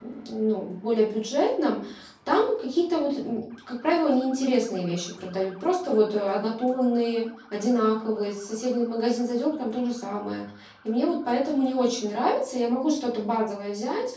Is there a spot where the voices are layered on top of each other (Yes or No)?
No